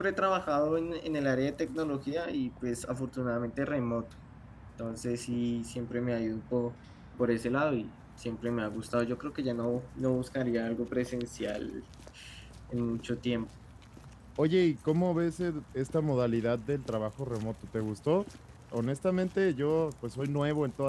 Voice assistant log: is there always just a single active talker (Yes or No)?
Yes